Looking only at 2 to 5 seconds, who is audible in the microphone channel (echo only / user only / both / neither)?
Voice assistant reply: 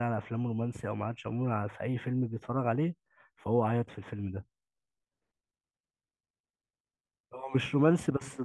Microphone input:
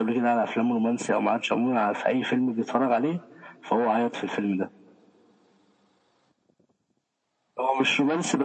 echo only